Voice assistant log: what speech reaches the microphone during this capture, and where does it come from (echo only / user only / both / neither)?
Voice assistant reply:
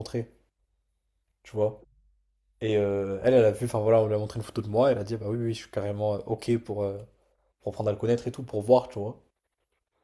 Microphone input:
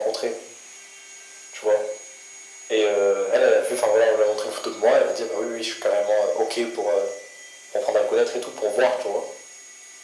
echo only